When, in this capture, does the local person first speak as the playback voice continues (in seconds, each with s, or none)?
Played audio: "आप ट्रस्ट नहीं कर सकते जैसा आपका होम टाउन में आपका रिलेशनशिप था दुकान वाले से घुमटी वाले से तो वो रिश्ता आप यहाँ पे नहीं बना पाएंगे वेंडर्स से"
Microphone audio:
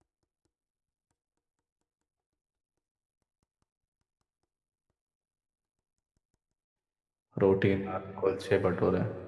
7.4 s